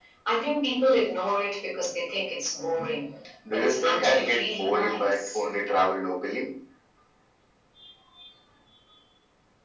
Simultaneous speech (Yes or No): Yes